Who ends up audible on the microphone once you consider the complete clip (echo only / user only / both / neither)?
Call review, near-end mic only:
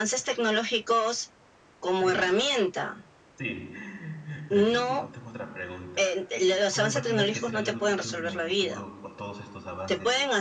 both